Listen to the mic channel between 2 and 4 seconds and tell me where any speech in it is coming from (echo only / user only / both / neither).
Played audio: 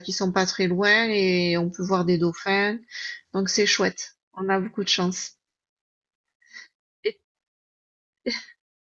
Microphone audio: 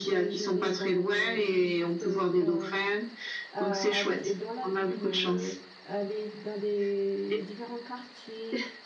both